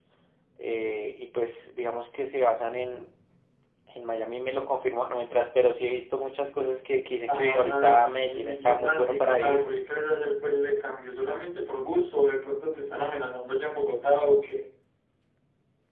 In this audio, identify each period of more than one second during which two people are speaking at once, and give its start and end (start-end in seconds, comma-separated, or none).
7.3-9.7